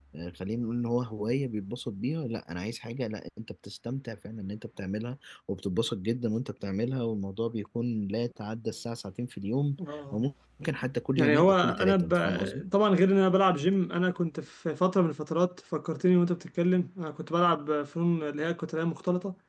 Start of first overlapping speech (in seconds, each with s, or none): 11.2 s